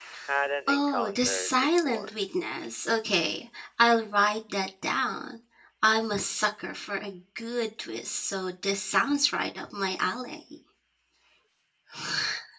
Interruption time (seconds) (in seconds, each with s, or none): 0.7 s